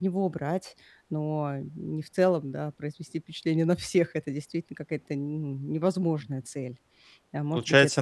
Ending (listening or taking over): taking over